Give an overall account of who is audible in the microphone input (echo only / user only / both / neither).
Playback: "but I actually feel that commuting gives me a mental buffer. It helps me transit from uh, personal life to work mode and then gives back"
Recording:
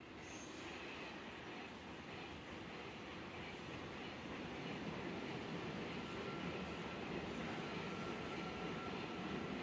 neither